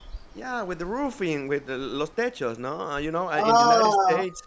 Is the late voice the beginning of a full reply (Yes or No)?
No